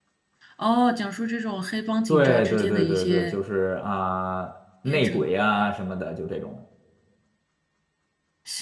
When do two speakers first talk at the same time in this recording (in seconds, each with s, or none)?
2.1 s